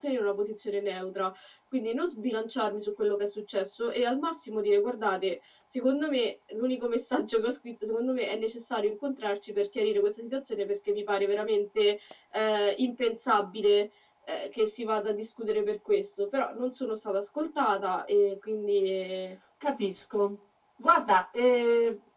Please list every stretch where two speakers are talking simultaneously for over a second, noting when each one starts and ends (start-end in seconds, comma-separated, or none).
none